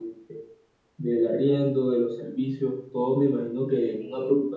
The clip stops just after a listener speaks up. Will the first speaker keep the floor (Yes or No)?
Yes